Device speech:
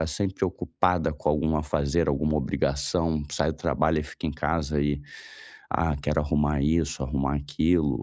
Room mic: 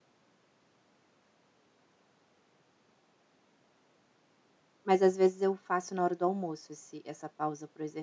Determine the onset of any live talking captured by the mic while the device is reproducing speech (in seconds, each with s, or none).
4.8 s